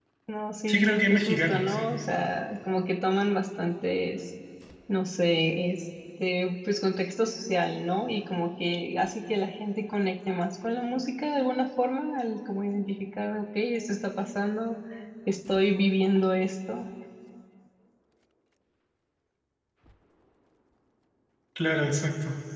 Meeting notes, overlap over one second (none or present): present